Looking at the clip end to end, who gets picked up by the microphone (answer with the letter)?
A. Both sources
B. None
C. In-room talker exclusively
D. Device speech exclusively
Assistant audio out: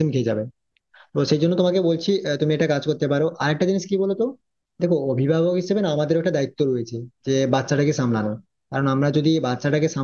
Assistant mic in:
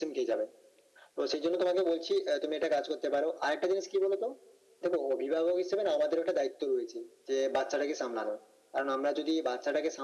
D